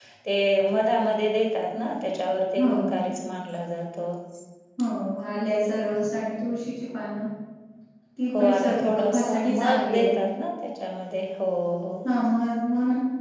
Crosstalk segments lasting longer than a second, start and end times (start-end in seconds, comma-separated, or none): 8.4-10.2